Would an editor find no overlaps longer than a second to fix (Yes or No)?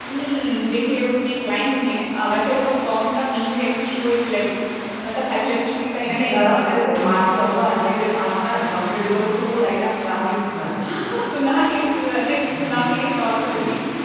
Yes